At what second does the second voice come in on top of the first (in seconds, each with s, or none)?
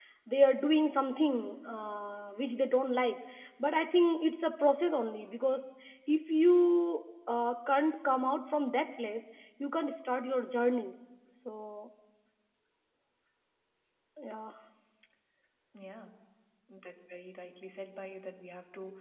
none